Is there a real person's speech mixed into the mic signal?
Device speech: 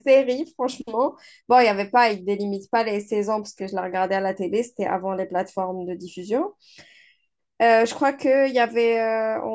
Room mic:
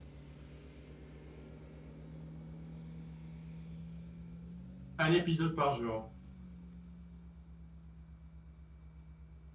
Yes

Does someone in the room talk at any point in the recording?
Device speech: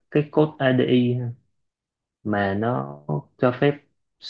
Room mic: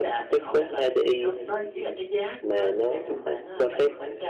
Yes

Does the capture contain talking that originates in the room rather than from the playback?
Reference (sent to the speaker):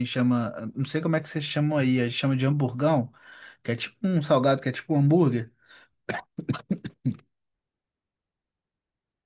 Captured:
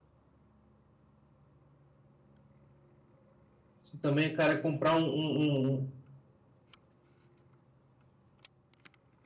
Yes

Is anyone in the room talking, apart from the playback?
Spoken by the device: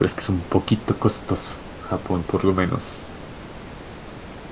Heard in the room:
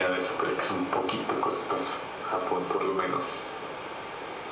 No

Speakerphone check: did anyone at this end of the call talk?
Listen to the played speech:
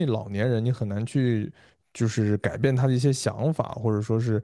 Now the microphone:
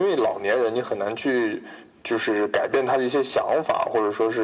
No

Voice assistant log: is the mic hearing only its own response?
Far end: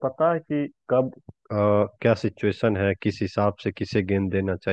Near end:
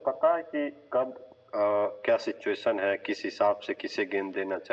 Yes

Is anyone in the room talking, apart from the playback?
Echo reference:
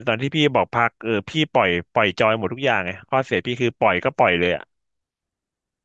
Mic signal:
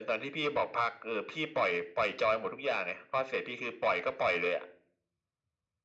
No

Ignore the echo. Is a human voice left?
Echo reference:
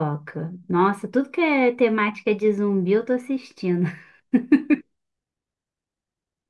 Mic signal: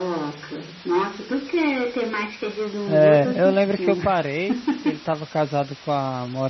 Yes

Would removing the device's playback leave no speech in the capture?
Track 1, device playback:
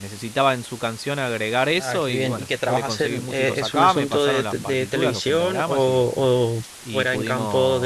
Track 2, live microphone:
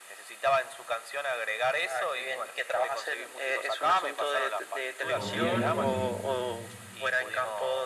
No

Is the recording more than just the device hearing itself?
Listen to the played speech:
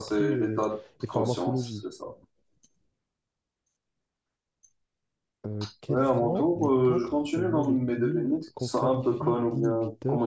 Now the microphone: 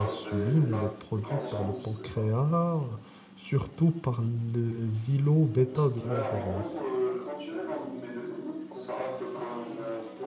Yes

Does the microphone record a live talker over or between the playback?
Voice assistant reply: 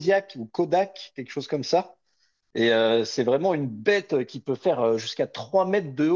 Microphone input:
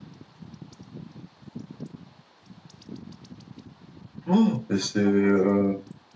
Yes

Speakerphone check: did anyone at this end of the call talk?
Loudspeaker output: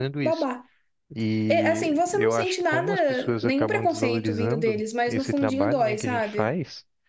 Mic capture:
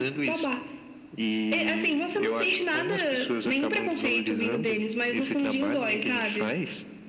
No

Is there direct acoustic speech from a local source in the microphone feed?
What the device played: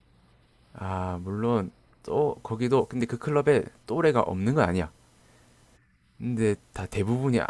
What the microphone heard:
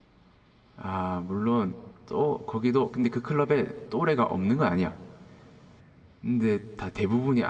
No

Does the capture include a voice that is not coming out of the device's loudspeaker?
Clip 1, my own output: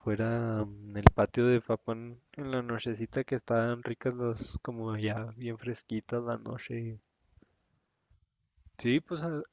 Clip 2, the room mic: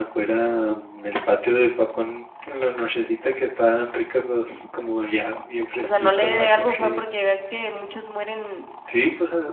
Yes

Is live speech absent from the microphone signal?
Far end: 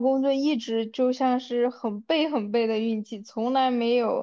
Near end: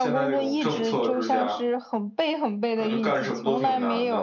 No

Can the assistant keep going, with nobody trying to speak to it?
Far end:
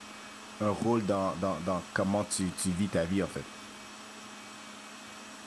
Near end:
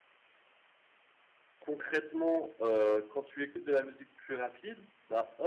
No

